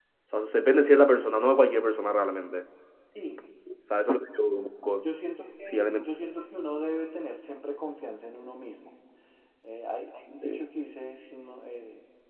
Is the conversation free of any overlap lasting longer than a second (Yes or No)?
Yes